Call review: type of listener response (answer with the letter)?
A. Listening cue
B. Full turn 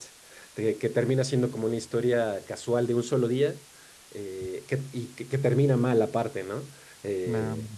A